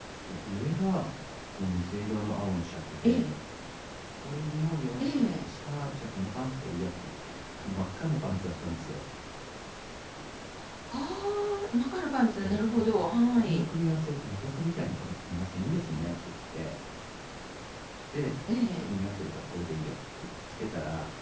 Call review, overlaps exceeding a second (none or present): present